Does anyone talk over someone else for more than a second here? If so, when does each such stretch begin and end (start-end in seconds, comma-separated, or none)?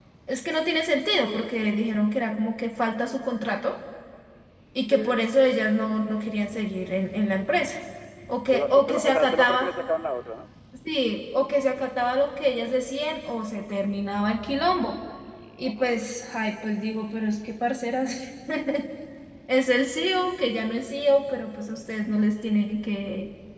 8.5-9.7